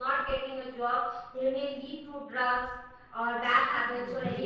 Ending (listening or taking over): taking over